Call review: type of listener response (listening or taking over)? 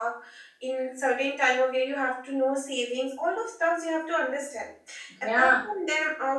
listening